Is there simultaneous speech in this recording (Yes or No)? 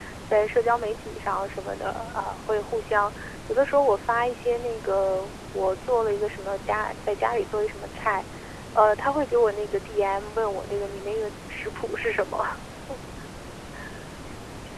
No